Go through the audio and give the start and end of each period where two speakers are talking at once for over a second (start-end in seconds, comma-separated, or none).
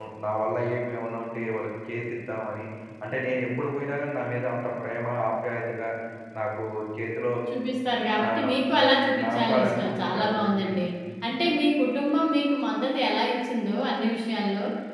9.2-10.7